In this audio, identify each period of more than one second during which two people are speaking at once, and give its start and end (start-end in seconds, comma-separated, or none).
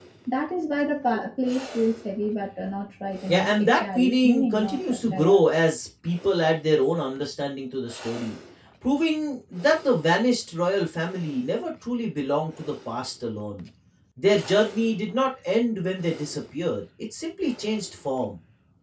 3.3-5.4